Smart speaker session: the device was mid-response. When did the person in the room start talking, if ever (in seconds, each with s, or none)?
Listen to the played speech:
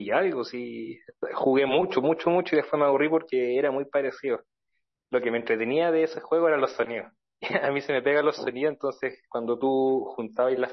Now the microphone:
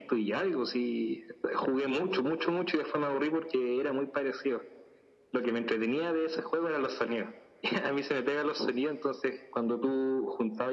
none